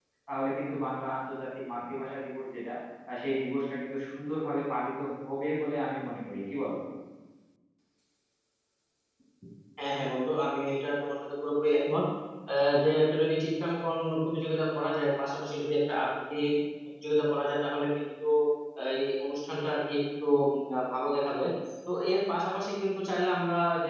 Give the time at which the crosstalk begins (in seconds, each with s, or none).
none